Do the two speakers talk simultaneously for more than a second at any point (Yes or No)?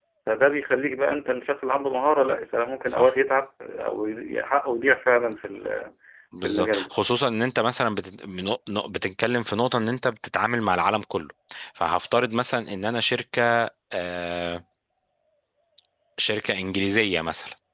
No